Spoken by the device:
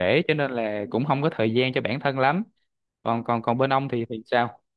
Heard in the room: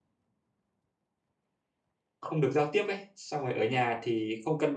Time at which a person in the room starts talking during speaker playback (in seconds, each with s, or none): 2.2 s